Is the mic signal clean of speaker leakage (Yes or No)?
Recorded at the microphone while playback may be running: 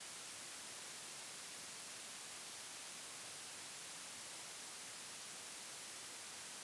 Yes